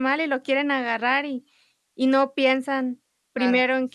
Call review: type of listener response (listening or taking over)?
listening